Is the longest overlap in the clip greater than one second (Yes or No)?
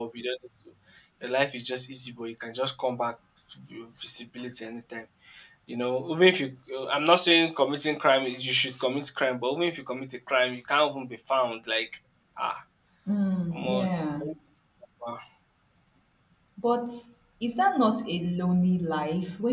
No